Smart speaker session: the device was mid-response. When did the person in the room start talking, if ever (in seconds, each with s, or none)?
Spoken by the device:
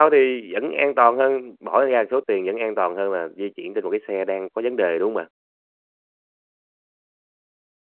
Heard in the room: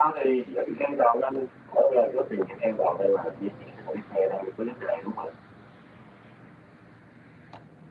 none